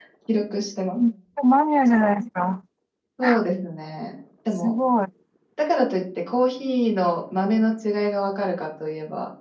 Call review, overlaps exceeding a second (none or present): none